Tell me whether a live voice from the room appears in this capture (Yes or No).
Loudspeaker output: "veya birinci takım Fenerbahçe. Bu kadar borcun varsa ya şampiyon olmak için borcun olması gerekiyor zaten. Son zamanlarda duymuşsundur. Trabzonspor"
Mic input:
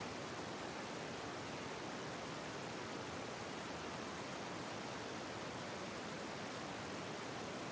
No